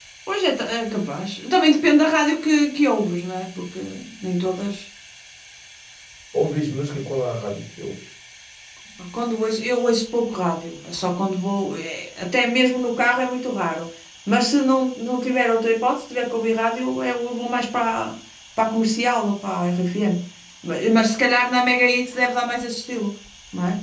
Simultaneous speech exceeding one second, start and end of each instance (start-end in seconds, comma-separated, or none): none